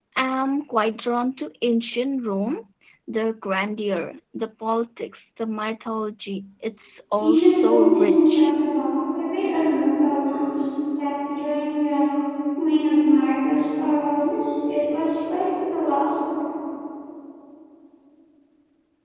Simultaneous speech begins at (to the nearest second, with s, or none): 7 s